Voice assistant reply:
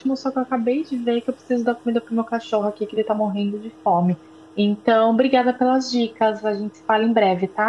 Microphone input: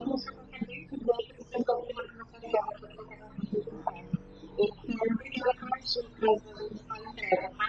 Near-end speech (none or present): none